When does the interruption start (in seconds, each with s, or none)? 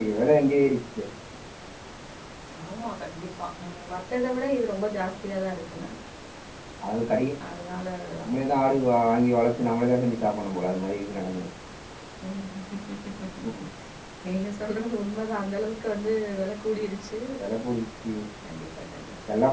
none